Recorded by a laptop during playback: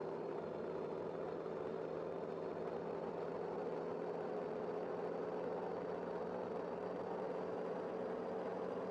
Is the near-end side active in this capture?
No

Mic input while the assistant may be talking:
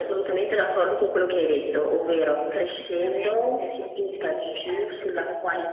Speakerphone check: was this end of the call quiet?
No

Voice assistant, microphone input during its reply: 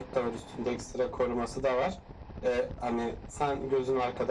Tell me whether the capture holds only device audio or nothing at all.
Yes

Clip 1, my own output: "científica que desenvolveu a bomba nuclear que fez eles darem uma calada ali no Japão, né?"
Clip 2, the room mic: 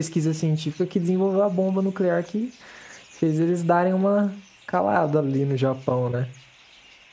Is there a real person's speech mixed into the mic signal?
No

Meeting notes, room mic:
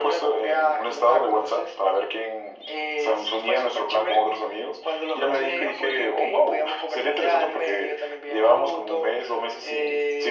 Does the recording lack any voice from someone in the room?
Yes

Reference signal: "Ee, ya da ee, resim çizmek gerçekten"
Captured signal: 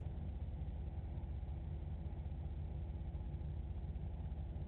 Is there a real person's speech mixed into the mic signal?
No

